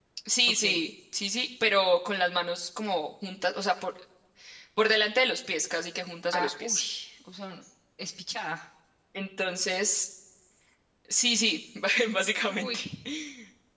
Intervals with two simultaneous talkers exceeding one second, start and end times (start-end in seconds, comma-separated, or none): none